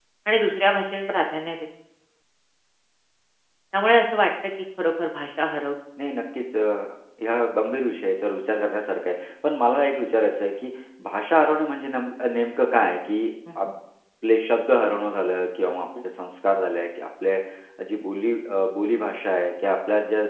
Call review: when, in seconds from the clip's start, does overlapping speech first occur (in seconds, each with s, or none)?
none